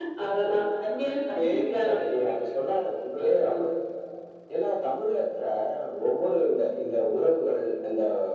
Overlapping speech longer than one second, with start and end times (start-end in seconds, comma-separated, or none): 1.1-2.4